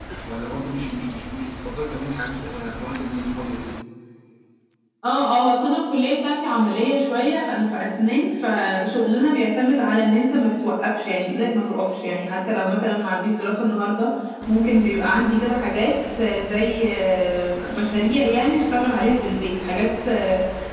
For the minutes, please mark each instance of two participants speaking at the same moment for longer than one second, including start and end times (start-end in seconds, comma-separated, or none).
none